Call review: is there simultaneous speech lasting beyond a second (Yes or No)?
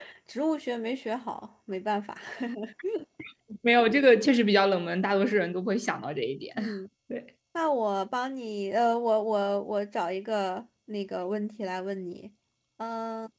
No